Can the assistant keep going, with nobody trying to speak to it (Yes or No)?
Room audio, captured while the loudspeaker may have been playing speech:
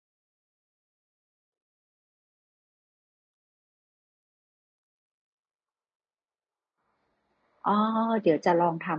No